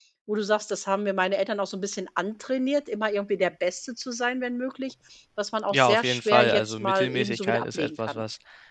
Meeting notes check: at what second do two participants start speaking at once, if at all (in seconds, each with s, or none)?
5.7 s